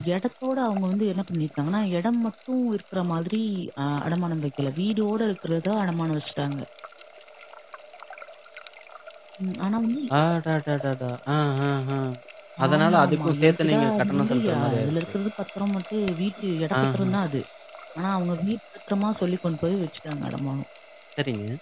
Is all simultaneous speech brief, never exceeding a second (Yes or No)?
No